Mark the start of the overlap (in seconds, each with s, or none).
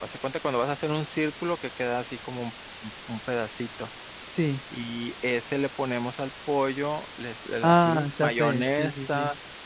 7.6 s